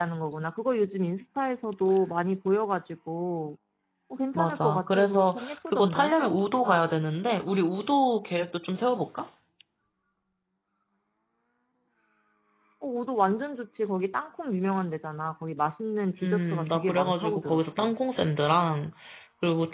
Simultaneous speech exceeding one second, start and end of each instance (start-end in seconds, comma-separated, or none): 4.4-6.1, 16.2-17.9